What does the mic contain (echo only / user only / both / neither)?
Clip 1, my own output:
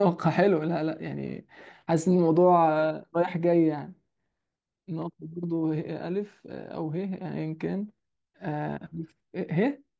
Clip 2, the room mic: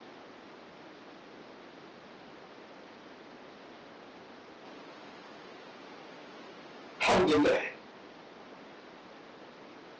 user only